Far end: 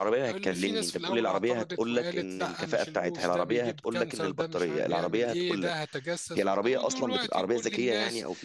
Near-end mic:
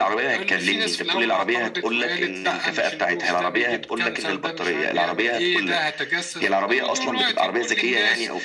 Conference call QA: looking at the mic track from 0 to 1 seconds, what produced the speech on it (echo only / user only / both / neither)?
echo only